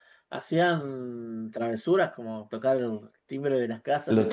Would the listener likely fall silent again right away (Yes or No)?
No